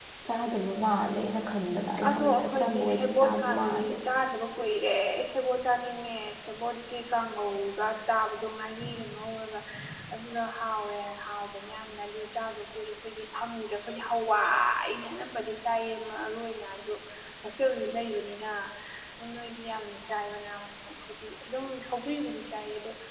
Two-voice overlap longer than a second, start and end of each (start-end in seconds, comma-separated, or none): 2.1-4.0